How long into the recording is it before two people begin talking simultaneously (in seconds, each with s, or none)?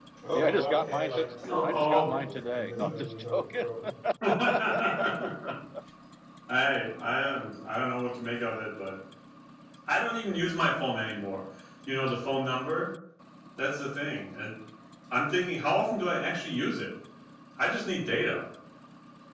1.4 s